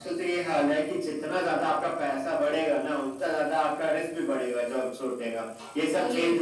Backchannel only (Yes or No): Yes